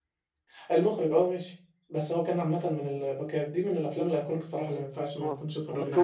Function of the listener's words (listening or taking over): taking over